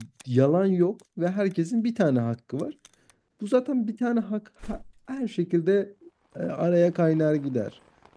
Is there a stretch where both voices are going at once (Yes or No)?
No